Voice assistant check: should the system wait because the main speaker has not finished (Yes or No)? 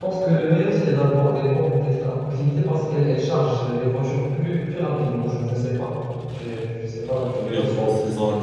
No